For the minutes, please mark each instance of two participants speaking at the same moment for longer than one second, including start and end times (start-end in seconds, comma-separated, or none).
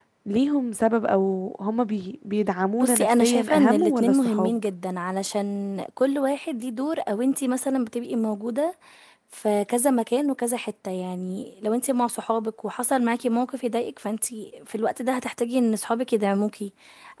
2.8-4.6